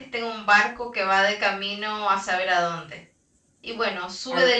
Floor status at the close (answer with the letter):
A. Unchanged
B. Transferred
B